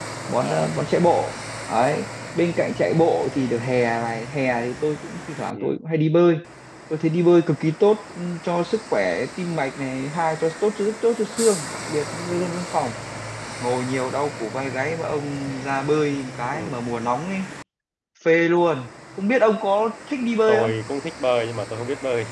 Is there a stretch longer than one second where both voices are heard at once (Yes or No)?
No